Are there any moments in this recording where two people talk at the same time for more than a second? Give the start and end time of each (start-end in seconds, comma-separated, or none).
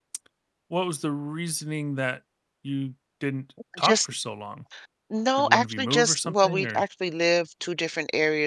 5.4-6.8